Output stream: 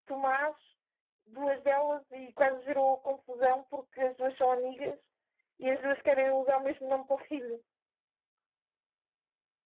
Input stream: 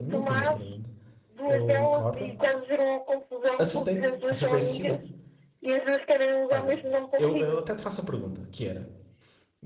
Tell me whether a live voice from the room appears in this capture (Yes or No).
Yes